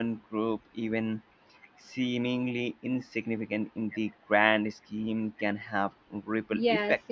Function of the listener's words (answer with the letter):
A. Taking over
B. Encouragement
A